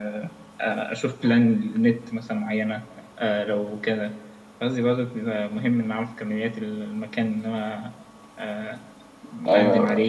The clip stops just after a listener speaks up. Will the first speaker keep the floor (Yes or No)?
No